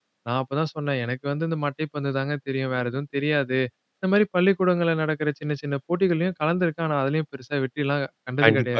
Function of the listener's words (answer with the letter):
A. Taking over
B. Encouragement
A